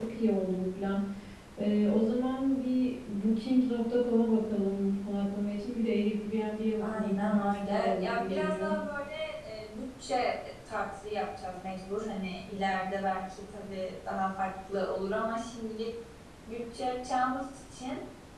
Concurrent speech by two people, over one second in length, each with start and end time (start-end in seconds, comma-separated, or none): 6.8-8.7